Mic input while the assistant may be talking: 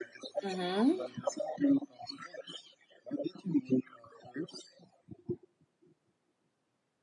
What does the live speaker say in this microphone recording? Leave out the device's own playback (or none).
Mm-hmm.